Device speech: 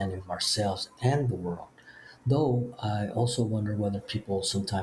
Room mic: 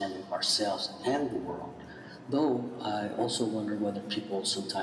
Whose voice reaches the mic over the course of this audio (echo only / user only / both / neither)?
echo only